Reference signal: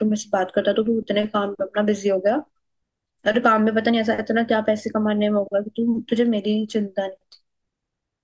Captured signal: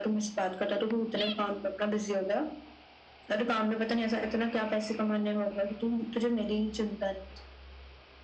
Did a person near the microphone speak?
No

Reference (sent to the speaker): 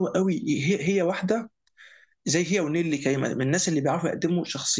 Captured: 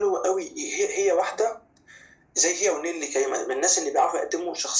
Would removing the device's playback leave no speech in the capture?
Yes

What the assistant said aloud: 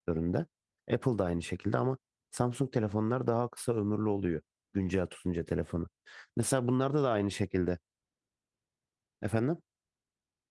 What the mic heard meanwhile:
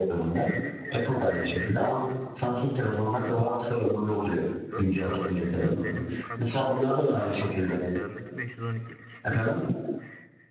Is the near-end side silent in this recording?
No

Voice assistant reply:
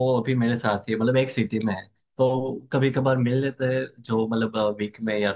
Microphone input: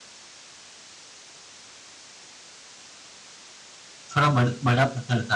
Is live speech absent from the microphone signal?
No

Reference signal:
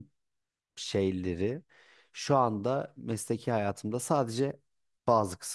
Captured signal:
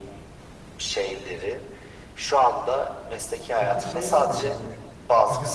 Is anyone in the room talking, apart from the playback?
Yes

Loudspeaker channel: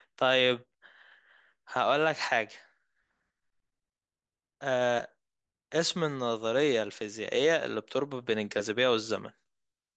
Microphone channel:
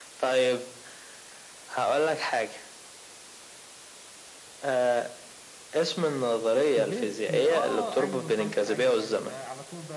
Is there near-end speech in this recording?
Yes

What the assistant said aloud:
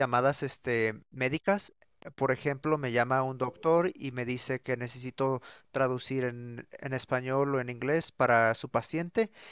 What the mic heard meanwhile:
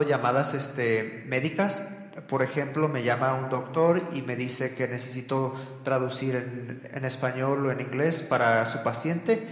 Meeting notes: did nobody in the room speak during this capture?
Yes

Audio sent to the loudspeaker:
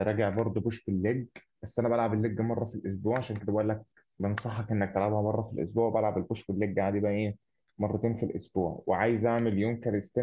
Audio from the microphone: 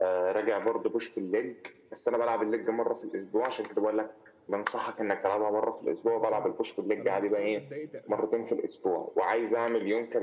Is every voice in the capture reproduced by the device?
No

